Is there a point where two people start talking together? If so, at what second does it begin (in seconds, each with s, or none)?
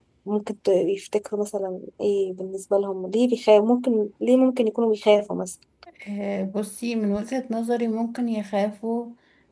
none